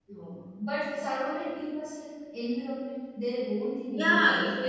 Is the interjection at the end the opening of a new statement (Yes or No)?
Yes